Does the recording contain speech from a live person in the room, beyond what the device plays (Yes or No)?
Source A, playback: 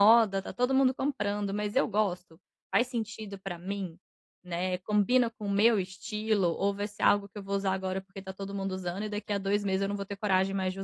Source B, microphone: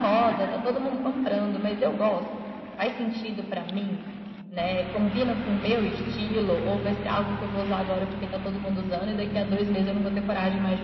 No